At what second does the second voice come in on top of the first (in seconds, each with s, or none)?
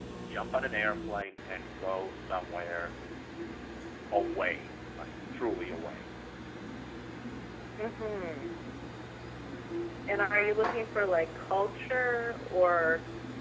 none